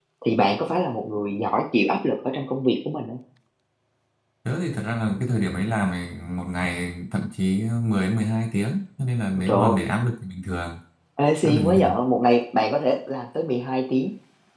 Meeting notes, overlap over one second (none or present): none